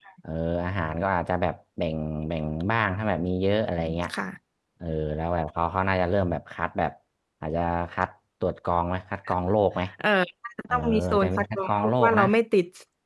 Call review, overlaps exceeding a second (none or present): present